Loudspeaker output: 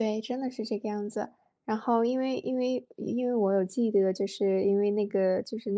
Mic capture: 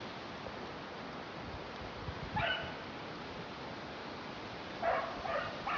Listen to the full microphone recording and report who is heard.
neither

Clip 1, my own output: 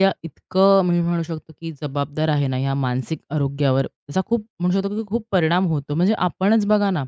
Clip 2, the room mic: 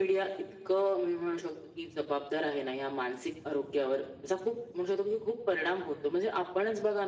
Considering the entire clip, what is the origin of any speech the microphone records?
echo only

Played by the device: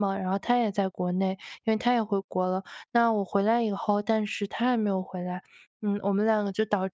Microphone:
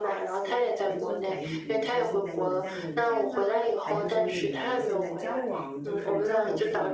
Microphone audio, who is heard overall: both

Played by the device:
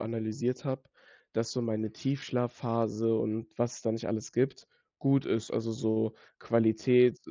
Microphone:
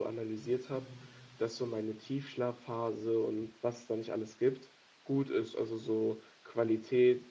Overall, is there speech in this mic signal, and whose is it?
both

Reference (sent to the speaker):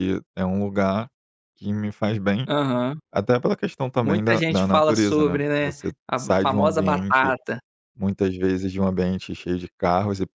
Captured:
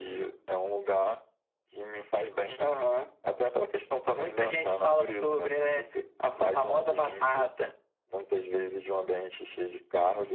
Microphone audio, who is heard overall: echo only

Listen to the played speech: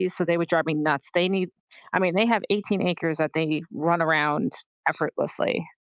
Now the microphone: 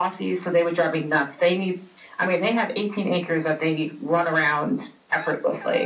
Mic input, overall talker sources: echo only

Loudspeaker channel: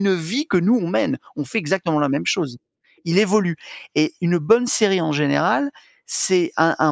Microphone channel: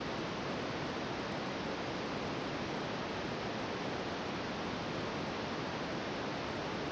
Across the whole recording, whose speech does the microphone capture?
neither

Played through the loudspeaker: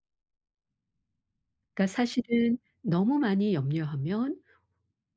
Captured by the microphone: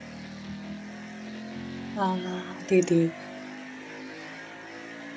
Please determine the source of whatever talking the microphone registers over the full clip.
user only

